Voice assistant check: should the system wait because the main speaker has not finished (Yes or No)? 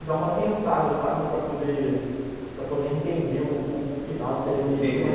Yes